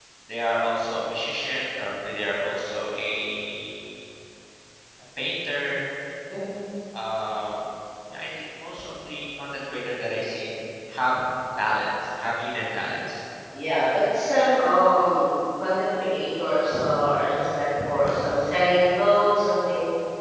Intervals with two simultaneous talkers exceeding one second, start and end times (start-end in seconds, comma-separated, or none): none